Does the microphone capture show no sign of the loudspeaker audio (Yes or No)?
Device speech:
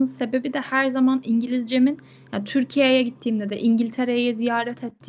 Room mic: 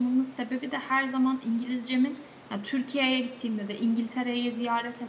No